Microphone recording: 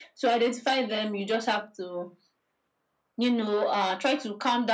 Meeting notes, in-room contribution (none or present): none